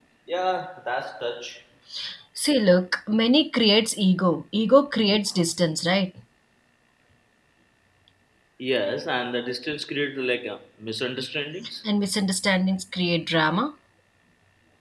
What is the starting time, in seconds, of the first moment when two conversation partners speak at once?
none

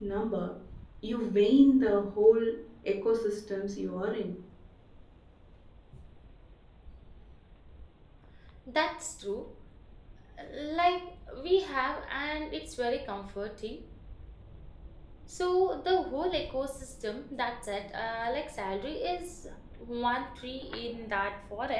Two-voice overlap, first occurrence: none

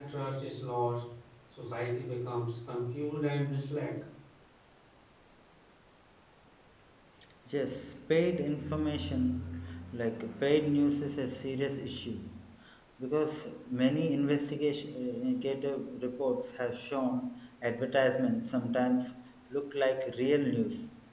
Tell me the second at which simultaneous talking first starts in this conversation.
none

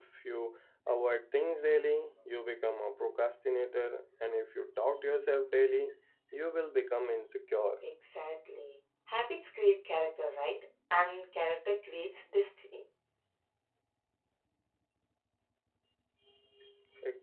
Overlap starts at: none

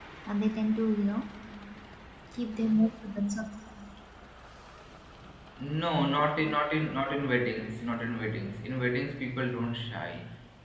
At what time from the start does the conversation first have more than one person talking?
none

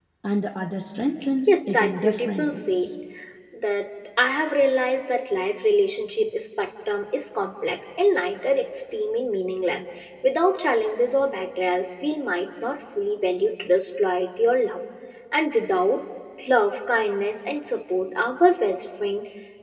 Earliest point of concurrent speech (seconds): 1.5 s

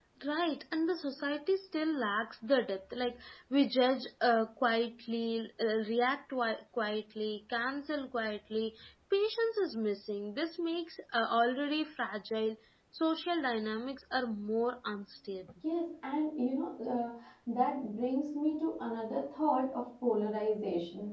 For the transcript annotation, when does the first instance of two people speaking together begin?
none

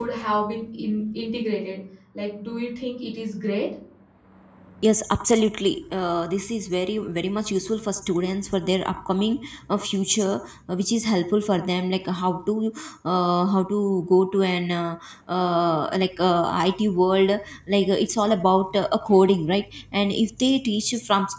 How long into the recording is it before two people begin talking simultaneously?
none

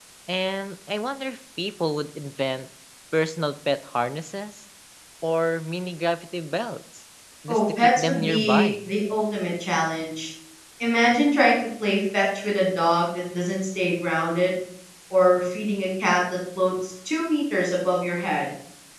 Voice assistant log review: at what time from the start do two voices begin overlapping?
7.5 s

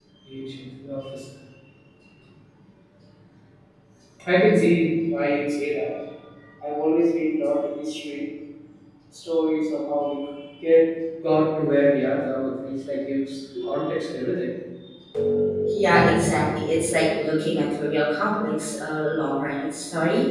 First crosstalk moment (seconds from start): none

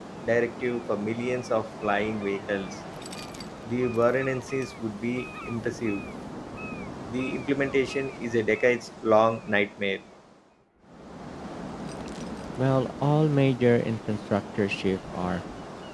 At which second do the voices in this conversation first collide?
none

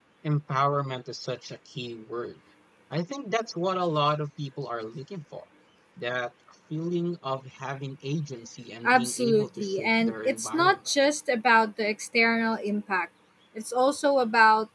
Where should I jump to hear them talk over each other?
8.8 s

